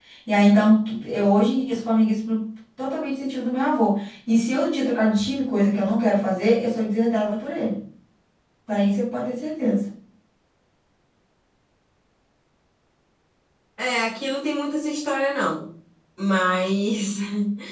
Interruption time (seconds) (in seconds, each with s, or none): none